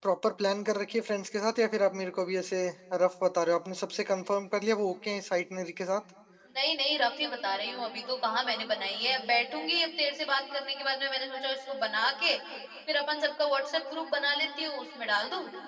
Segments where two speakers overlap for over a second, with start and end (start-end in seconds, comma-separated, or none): none